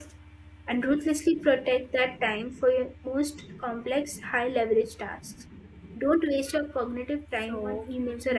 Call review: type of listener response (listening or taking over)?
taking over